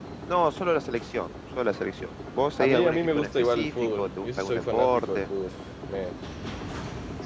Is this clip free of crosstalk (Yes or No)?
No